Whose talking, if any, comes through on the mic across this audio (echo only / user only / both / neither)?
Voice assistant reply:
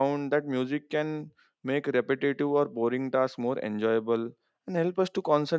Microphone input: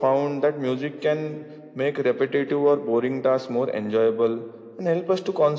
echo only